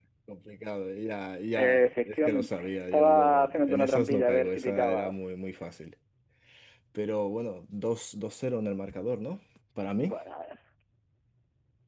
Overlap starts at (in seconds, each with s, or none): 1.6 s